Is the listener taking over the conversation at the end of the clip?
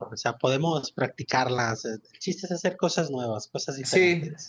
Yes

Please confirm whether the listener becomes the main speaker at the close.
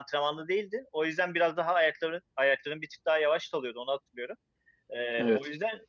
No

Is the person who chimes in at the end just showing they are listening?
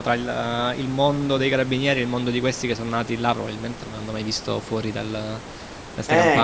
No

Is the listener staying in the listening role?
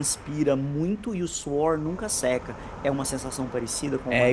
No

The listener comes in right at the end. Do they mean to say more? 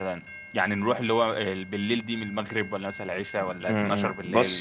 Yes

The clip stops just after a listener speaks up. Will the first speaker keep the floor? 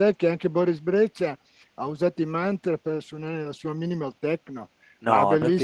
Yes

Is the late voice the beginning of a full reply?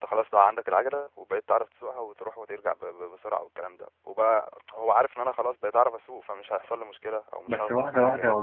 Yes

